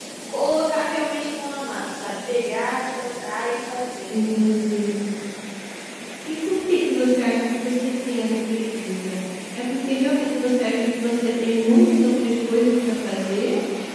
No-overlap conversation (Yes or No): Yes